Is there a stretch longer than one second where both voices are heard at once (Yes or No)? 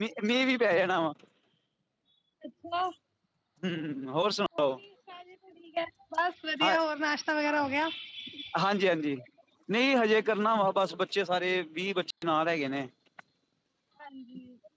No